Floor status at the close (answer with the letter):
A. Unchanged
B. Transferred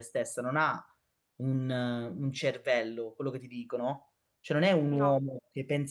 A